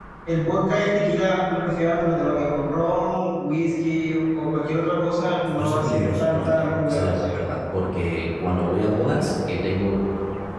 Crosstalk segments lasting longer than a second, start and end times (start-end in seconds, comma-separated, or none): 5.6-7.4